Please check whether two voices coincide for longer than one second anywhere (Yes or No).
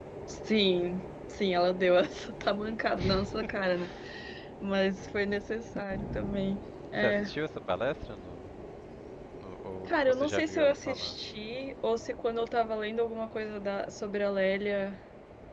Yes